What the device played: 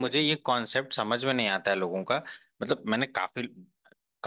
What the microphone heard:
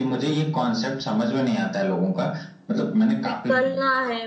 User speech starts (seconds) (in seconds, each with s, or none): 3.2 s